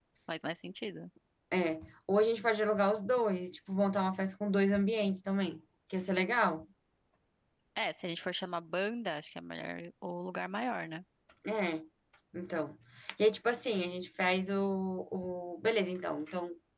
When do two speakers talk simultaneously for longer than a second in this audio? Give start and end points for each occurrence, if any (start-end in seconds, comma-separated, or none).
none